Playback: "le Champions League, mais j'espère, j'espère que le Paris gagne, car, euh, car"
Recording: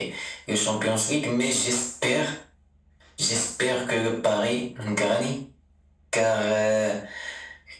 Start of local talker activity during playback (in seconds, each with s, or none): none